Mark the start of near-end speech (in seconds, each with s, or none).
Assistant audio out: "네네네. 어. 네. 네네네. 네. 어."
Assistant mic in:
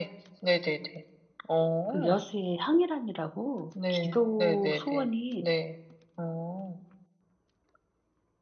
1.9 s